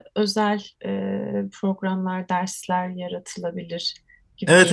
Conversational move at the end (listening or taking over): taking over